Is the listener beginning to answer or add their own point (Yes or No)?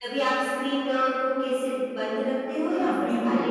Yes